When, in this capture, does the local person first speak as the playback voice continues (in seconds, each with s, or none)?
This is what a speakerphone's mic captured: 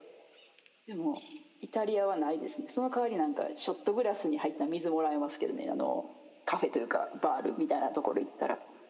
none